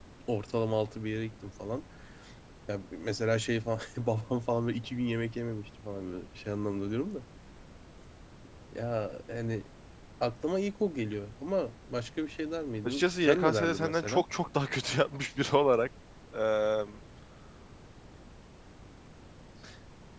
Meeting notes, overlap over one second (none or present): present